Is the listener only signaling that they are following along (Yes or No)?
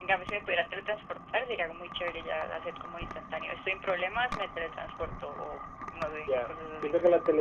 No